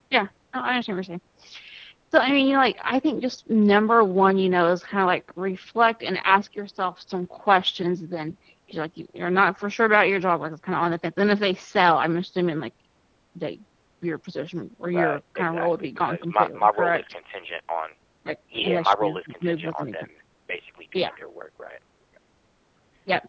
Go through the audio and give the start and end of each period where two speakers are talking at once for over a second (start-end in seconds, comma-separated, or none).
14.9-17.0, 18.6-20.1